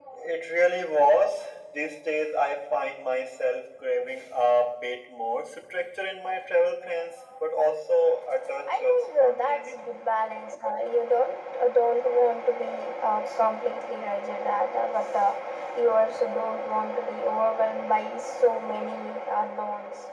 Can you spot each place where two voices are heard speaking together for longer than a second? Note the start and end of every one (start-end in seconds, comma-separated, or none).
8.7-9.9